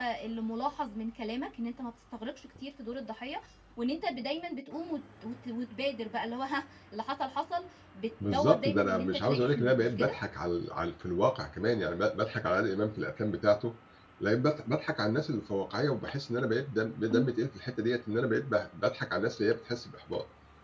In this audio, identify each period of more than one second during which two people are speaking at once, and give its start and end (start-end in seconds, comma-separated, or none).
8.2-10.2